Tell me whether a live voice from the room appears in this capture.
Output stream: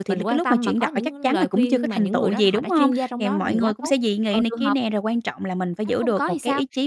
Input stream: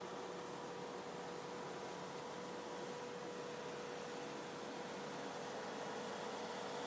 No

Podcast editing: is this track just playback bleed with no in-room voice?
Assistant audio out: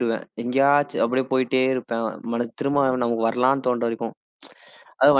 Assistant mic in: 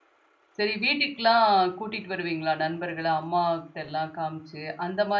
No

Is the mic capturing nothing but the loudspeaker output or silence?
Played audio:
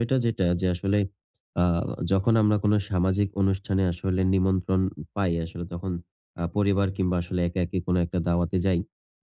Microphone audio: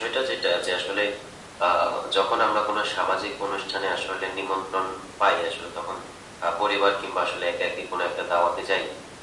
Yes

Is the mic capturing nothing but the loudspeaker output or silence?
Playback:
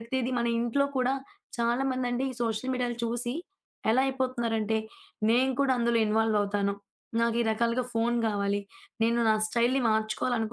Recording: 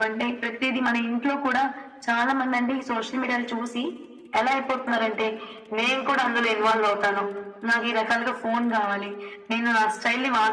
Yes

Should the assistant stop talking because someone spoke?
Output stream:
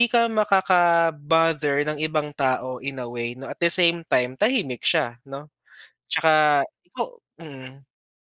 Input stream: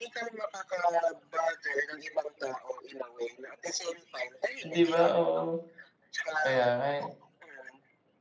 Yes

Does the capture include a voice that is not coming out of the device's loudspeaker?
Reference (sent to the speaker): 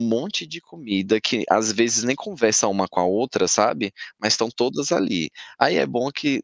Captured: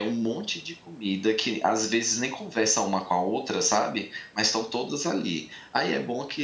No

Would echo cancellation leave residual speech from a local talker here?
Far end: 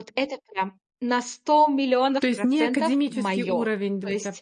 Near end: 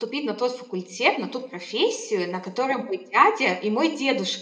Yes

